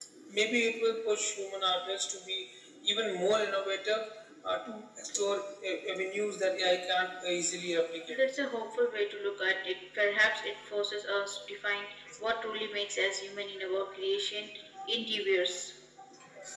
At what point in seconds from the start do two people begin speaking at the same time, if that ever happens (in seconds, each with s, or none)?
none